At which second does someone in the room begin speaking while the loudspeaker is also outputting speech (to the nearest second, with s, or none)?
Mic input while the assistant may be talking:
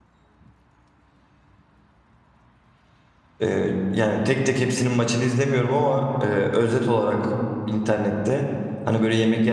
3 s